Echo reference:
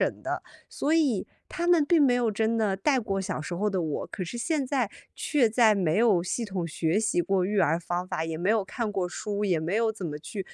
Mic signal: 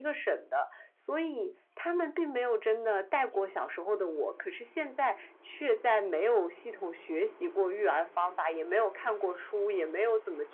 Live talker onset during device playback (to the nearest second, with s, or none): none